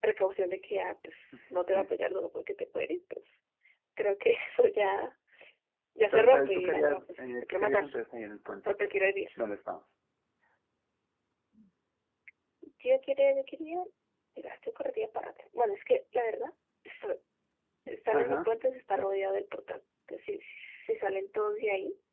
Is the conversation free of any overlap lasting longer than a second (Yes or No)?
No